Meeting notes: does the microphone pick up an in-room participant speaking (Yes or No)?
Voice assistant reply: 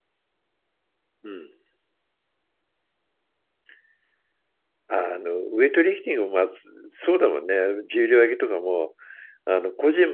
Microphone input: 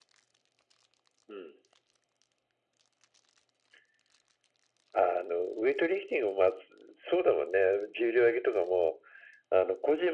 No